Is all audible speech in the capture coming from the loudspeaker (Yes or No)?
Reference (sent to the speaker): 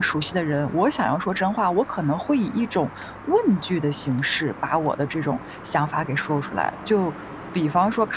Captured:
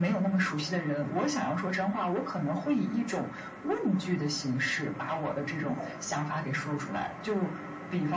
No